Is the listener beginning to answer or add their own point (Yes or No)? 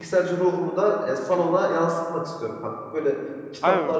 No